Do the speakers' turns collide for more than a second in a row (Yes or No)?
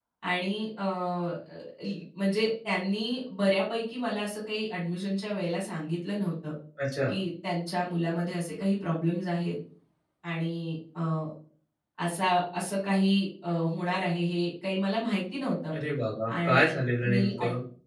Yes